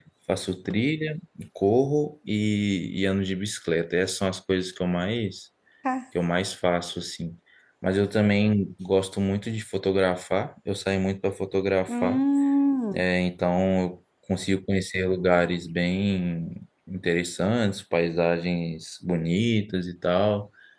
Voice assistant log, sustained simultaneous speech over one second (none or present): none